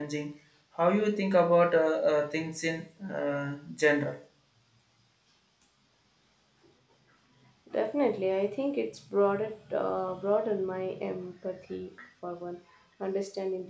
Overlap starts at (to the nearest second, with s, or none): none